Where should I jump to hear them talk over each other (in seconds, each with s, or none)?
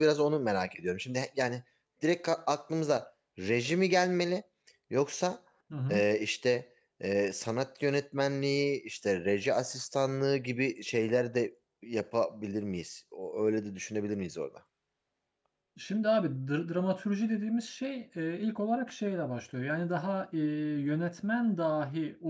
none